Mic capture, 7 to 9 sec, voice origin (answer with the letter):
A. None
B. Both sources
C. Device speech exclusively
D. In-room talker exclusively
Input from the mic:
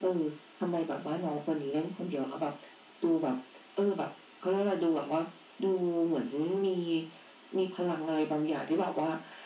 C